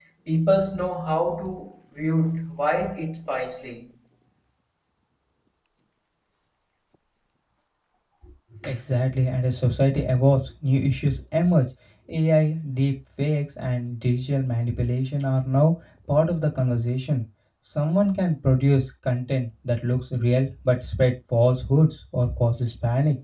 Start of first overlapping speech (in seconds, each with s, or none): none